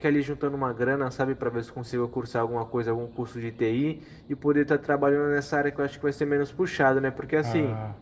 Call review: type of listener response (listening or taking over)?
listening